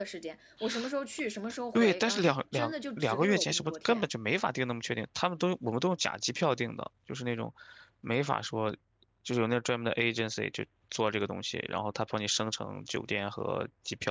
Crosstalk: present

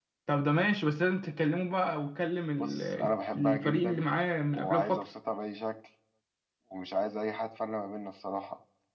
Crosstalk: present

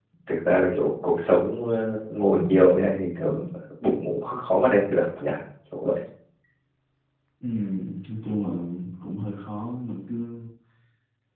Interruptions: none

